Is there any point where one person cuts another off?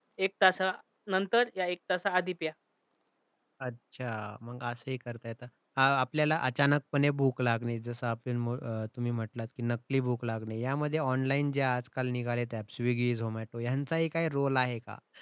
No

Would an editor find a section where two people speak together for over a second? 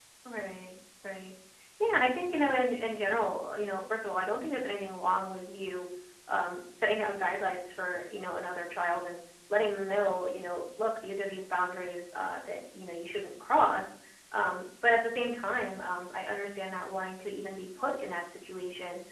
No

